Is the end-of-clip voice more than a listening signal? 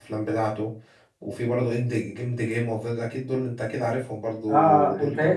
Yes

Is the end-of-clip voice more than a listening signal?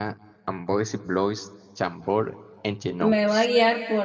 Yes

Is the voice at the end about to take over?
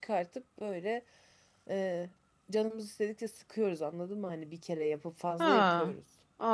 Yes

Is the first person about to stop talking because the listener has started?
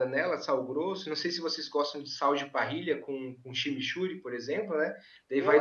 Yes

